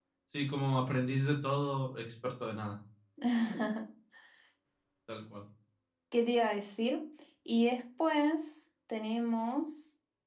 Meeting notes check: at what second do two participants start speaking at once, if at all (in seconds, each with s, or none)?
none